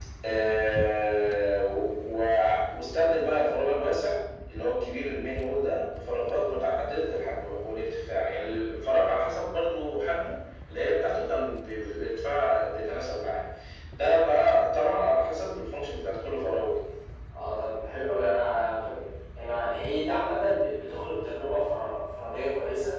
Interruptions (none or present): none